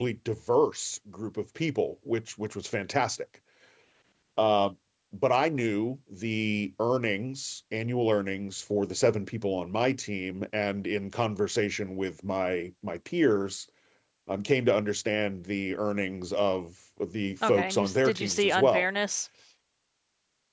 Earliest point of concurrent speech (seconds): 17.4 s

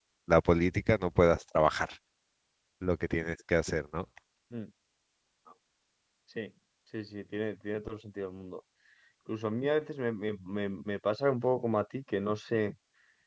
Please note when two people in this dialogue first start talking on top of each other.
none

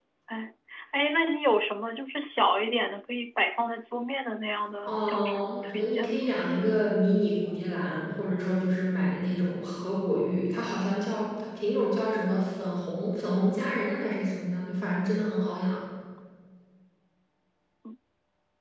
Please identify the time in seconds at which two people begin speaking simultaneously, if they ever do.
4.9 s

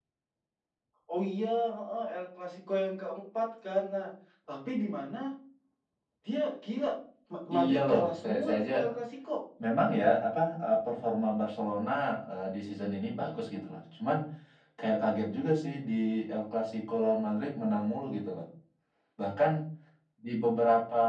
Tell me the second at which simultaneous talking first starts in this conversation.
7.5 s

